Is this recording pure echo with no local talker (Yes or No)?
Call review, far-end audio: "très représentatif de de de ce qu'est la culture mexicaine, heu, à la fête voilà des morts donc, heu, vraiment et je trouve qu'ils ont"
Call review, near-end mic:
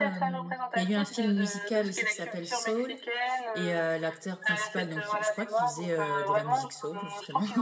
No